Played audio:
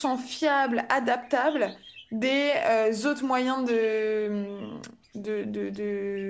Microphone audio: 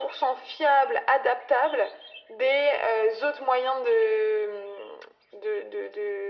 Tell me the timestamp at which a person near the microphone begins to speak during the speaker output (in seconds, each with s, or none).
none